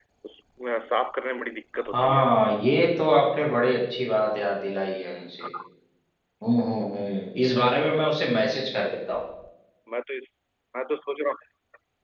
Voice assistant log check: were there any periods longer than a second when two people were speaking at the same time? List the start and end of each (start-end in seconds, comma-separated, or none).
none